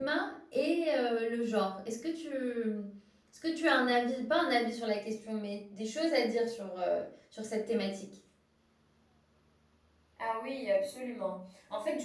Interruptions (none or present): none